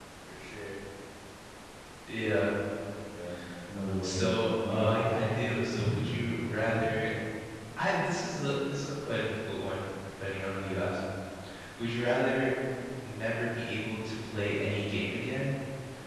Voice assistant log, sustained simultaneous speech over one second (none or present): present